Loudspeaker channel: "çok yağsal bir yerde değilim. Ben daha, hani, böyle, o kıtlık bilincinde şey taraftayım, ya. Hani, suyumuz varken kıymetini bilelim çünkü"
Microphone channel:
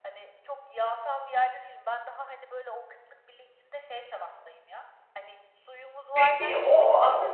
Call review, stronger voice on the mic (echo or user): user